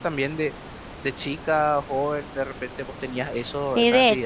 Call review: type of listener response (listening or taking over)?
taking over